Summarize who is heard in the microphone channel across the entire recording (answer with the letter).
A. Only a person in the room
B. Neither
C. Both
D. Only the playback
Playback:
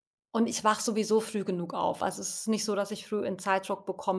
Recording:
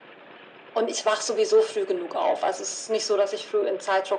D